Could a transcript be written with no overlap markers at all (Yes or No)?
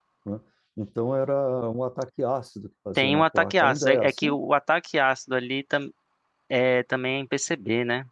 No